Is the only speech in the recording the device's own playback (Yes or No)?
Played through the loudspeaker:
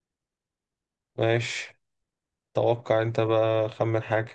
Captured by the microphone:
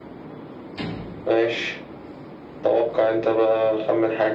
Yes